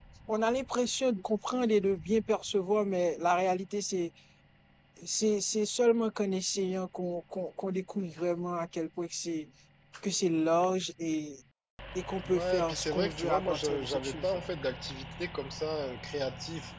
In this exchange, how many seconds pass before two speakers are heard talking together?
12 s

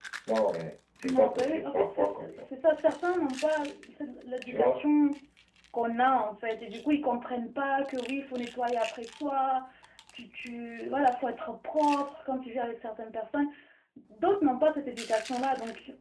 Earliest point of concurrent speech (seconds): 1 s

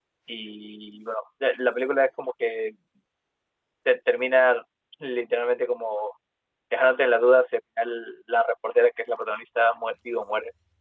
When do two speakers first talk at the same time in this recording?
none

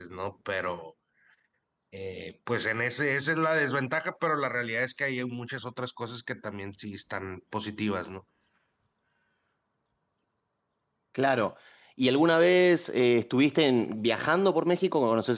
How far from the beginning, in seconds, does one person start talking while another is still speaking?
none

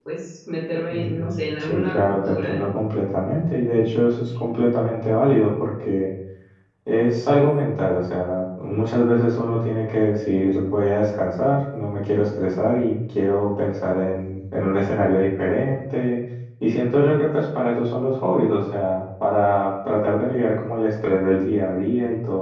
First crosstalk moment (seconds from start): 1 s

